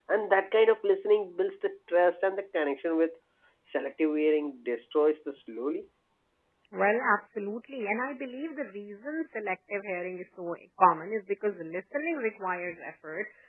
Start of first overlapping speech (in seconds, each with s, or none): none